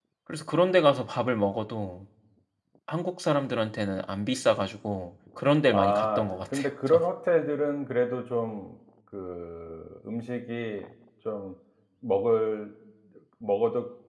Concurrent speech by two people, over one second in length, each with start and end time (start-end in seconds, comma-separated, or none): 5.7-7.0